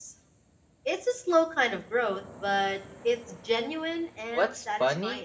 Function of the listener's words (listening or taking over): taking over